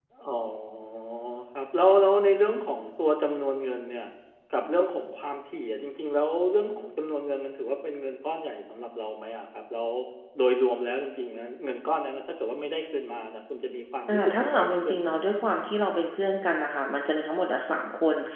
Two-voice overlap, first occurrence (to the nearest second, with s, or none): 14 s